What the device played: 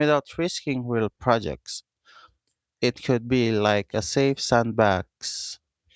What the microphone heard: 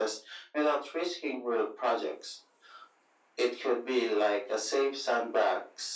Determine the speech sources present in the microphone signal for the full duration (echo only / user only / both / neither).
echo only